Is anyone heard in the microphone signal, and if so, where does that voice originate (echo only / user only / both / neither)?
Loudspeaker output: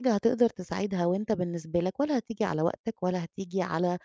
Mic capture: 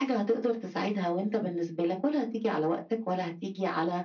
echo only